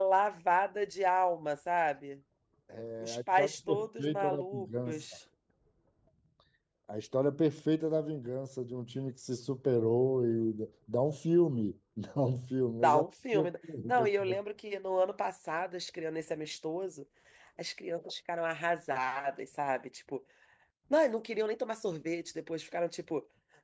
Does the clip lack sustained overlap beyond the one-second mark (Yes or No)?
No